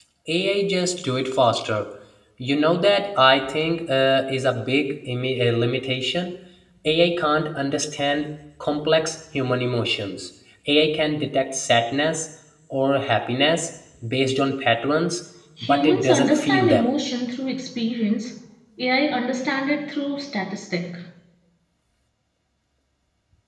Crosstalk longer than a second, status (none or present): present